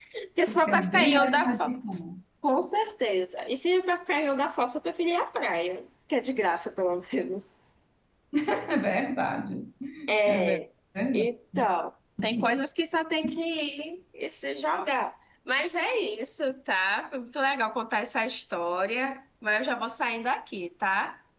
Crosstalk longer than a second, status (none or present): present